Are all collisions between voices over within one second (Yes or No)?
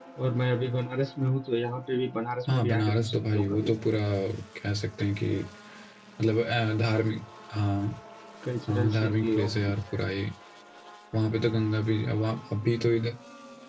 No